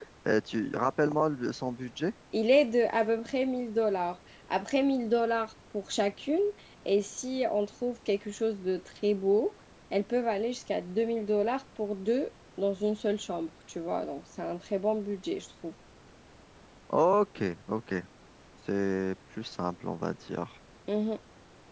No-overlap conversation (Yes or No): Yes